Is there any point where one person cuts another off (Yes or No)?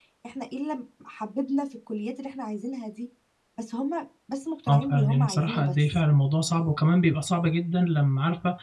Yes